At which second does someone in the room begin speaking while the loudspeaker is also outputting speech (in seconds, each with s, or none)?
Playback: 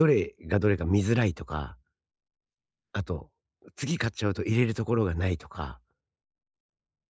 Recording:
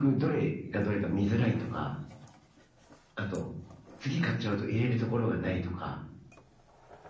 none